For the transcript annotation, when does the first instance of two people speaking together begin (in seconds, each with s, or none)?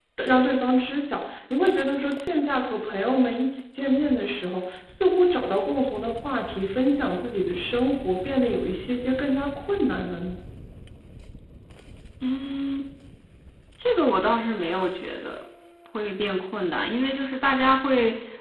none